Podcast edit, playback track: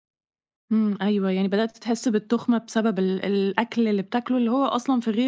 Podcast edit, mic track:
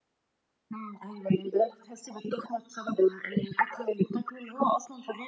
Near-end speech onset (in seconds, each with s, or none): none